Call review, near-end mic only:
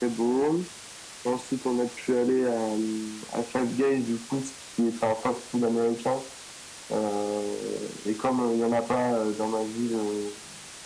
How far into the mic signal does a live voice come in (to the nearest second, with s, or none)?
none